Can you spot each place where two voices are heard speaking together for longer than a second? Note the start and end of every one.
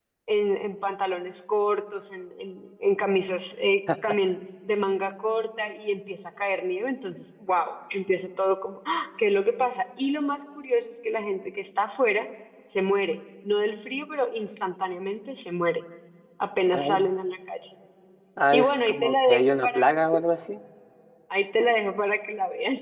18.5-19.8

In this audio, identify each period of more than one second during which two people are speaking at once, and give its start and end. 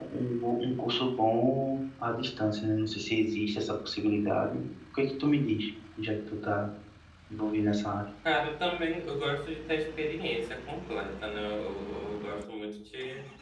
none

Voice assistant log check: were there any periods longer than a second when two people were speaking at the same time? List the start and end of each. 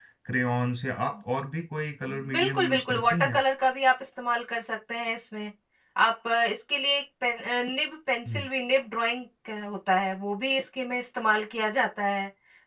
2.1-3.4

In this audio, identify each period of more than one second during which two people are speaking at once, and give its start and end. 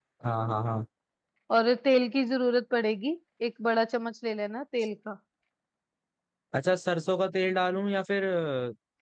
none

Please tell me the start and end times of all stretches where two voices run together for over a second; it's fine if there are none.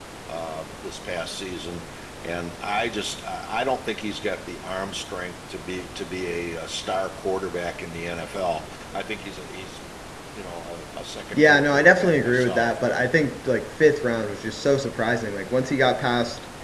11.3-12.8

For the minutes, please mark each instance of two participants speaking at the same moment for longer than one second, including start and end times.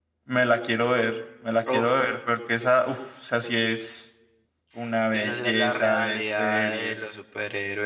5.1-7.0

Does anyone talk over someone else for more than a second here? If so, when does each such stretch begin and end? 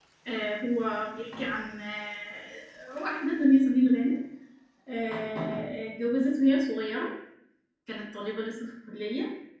none

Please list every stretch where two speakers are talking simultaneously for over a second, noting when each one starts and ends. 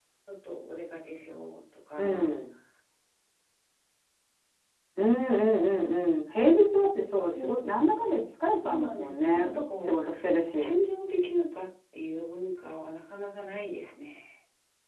8.6-10.0

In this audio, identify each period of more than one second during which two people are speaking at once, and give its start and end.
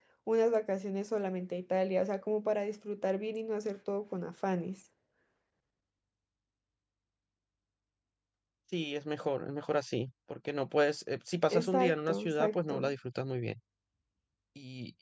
11.6-13.0

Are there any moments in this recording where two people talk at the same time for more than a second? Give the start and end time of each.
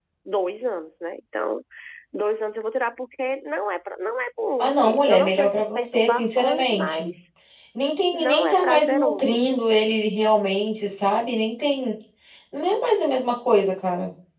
4.6-7.1, 8.1-9.4

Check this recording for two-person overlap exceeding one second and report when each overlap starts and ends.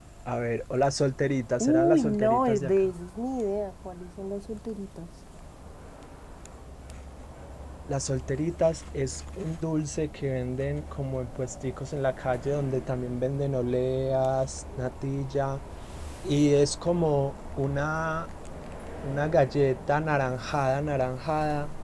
1.6-2.9

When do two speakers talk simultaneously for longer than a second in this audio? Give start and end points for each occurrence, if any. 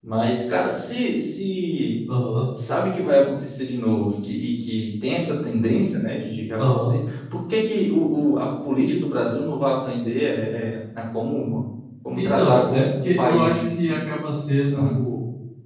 12.2-14.0

